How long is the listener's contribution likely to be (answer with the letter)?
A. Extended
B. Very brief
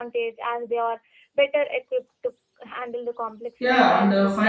A